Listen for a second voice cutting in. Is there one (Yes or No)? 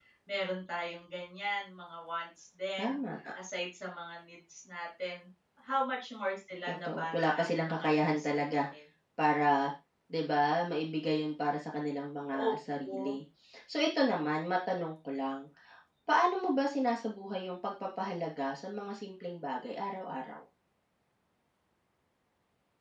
Yes